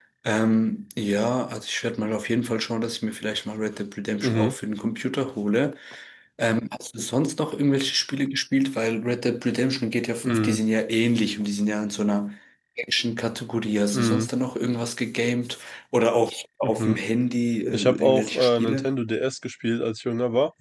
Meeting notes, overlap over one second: present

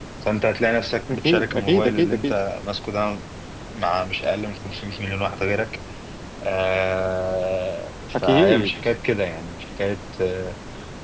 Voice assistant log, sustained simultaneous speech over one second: present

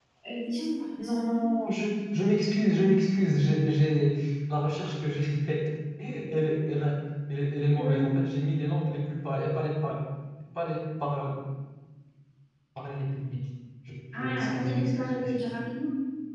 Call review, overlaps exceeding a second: present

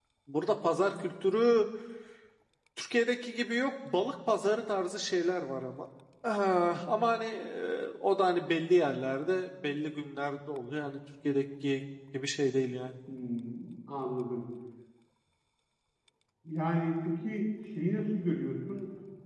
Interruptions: none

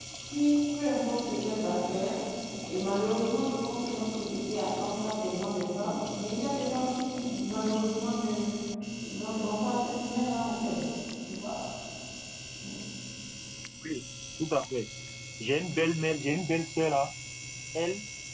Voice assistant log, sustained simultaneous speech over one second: none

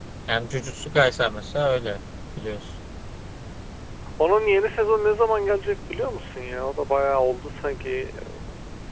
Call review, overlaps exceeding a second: none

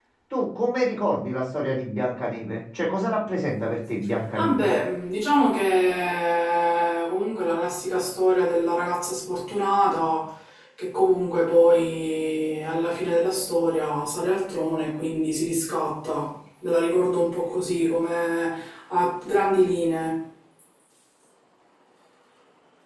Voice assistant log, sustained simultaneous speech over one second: none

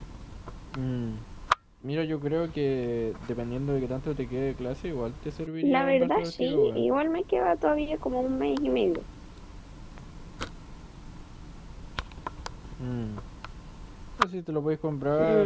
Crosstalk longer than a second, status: present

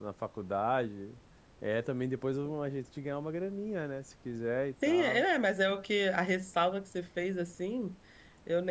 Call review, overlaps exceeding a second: none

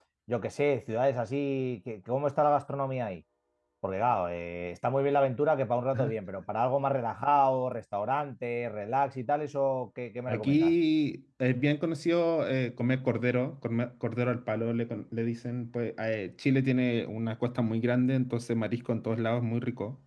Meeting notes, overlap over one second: none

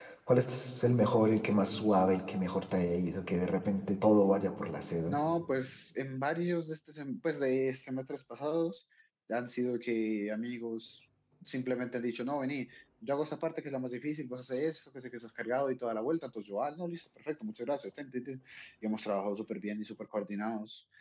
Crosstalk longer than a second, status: none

